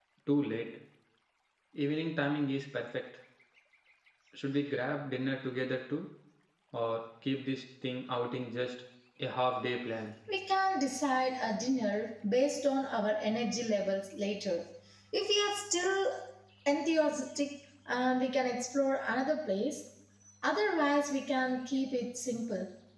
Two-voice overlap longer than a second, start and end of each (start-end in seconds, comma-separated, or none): none